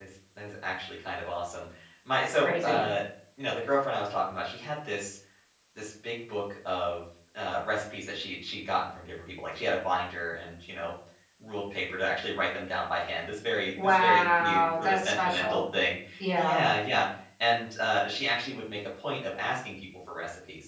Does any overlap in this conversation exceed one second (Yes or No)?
Yes